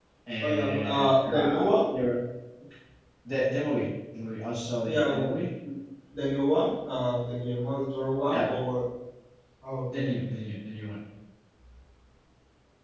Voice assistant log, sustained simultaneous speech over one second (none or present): present